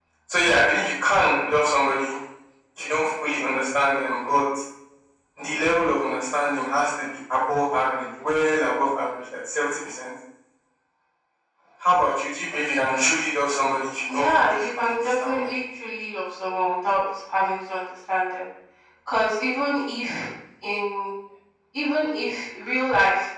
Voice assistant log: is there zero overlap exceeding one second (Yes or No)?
No